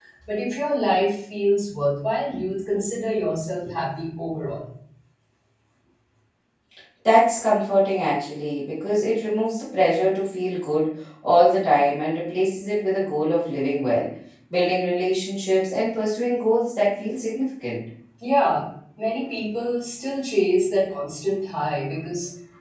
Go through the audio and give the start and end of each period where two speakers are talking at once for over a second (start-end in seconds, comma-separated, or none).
none